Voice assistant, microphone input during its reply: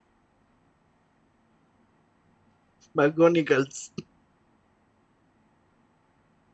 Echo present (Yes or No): No